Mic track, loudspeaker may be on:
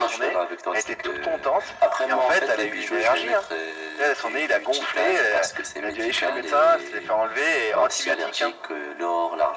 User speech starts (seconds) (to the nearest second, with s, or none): none